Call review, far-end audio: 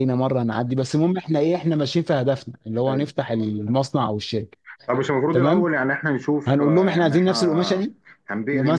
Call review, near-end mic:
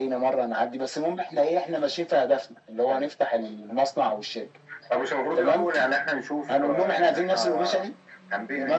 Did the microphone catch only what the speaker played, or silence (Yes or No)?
Yes